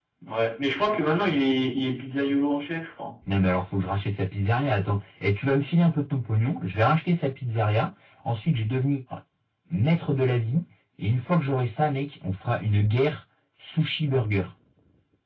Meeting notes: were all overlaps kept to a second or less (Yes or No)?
Yes